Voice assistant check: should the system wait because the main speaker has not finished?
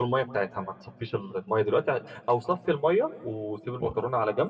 Yes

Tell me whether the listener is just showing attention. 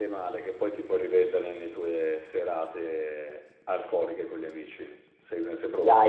No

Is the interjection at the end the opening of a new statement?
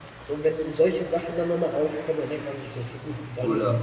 Yes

